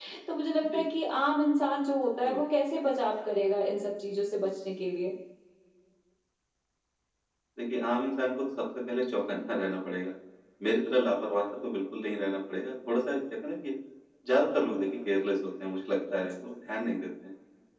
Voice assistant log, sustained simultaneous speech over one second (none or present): none